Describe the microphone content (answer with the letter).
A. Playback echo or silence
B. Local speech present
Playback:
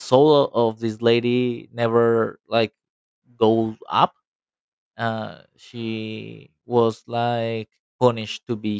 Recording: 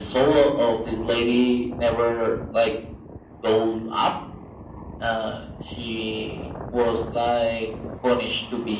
A